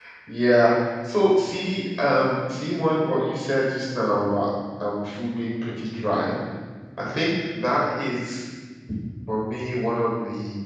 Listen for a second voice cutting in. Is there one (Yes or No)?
No